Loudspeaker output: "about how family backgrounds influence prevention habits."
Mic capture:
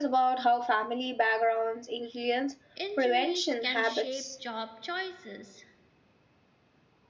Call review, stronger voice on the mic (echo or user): echo